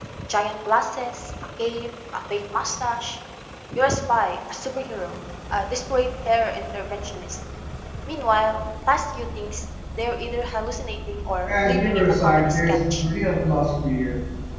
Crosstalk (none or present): present